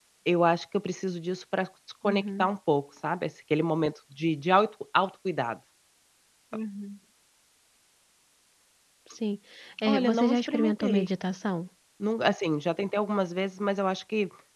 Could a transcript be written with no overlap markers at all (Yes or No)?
No